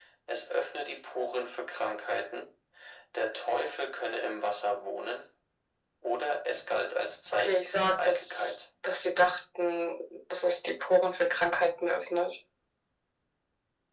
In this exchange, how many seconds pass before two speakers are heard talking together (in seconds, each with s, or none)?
7.3 s